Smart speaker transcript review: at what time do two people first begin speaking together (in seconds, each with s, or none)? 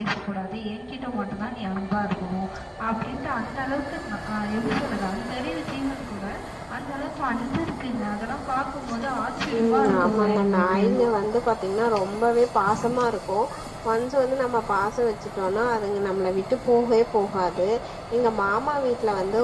9.6 s